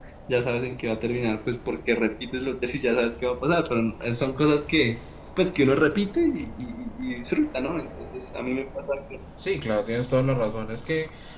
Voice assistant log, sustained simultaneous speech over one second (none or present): none